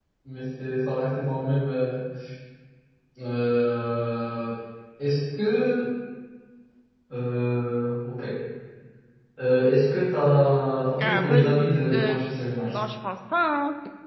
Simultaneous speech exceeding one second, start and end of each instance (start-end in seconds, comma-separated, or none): 11.0-12.2